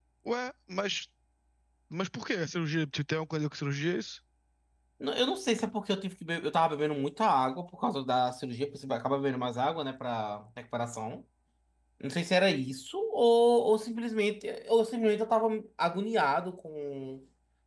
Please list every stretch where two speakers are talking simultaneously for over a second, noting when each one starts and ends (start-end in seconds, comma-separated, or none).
none